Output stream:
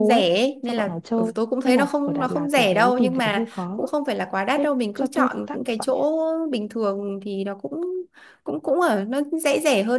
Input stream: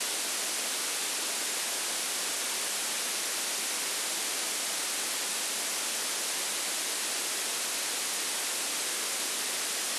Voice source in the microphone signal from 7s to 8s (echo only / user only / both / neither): neither